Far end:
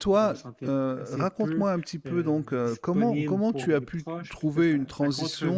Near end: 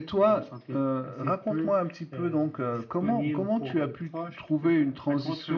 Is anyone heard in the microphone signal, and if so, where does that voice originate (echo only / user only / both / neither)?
echo only